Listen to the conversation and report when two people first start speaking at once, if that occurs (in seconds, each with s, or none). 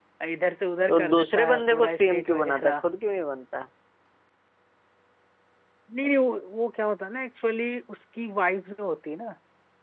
0.9 s